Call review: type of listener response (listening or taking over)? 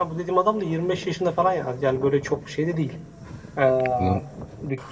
listening